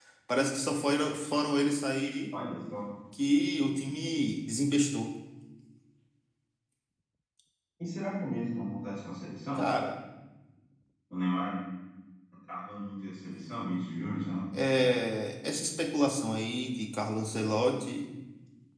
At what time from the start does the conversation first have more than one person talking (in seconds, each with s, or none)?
none